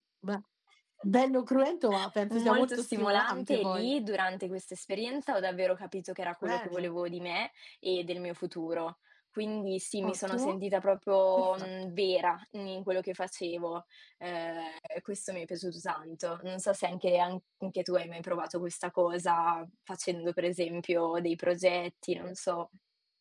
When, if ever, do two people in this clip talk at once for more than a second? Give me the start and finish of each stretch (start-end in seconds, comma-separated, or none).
2.3-3.9